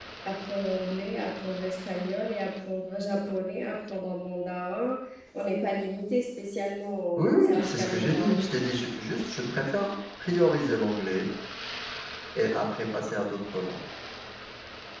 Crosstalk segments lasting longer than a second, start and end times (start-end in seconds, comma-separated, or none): 7.2-8.4